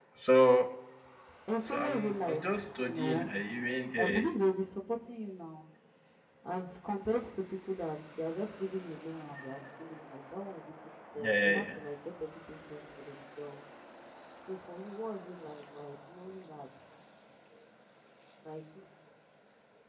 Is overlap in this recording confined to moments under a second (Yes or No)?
No